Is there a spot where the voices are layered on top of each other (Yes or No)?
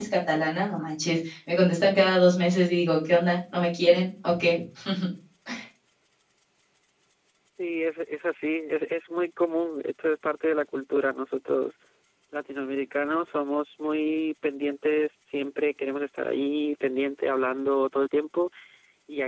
No